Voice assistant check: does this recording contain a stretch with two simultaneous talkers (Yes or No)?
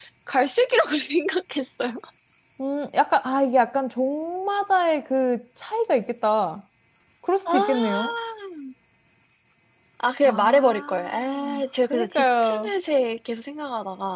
Yes